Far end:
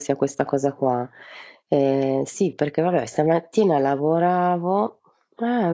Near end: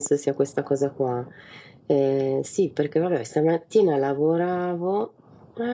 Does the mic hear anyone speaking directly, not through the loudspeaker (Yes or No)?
No